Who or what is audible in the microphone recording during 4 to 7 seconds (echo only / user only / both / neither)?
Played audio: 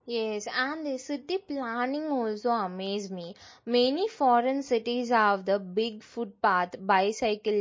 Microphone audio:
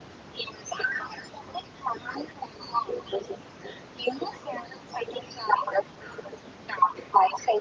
echo only